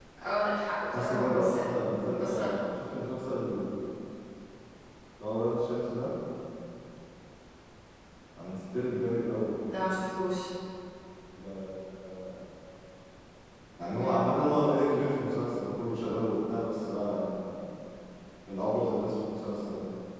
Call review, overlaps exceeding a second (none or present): present